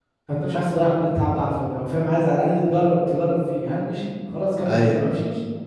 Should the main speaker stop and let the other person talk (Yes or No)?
No